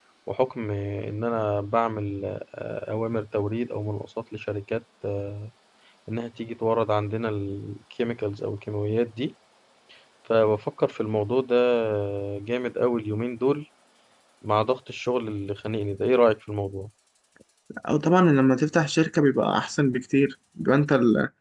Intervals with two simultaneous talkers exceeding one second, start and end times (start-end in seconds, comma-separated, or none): none